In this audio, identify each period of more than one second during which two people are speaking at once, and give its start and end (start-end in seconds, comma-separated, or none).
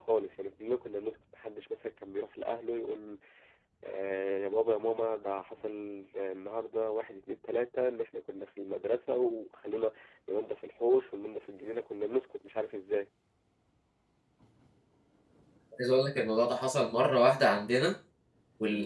none